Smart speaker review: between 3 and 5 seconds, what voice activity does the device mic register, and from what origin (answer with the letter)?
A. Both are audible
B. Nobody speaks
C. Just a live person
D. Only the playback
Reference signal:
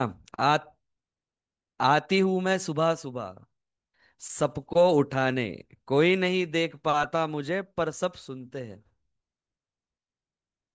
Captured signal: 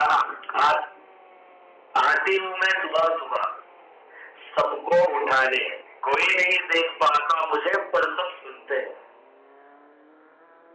D